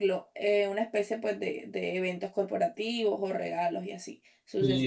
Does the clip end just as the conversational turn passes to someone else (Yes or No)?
Yes